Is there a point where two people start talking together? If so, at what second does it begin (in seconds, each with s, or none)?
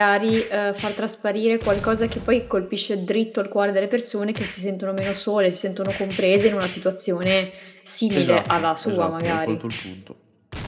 8.1 s